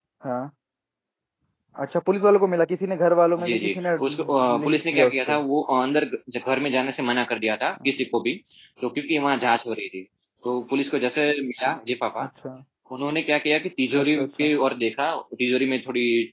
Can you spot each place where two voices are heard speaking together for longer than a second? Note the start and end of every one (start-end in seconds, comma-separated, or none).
3.5-5.3